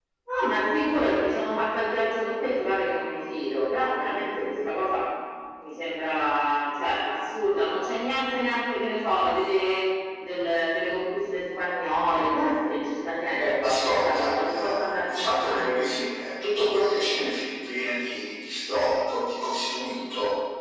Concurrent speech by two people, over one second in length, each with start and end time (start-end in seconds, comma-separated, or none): 13.4-15.8